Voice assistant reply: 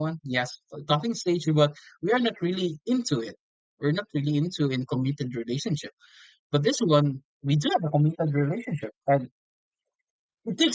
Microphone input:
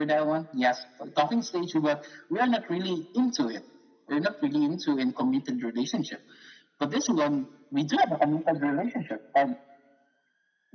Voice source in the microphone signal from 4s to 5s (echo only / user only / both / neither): echo only